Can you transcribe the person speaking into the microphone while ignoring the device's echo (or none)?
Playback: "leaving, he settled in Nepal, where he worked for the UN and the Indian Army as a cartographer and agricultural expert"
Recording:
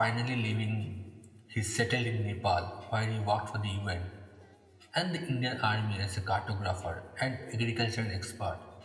none